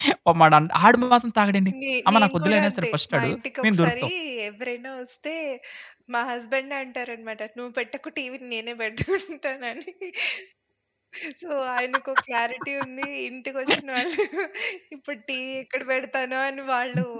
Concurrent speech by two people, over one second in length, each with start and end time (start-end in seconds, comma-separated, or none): 2.1-4.0